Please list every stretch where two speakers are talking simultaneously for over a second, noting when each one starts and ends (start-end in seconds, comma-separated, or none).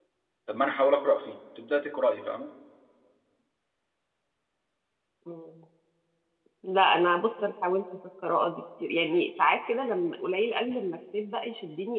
none